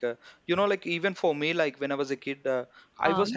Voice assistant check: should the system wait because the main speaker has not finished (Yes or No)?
Yes